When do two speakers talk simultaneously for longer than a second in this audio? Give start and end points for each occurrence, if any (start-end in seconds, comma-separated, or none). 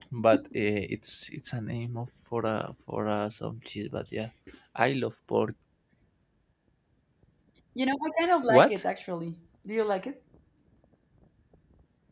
none